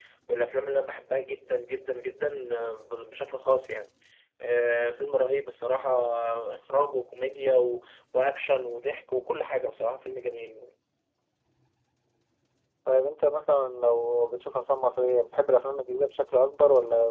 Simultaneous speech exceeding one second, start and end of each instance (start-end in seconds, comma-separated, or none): none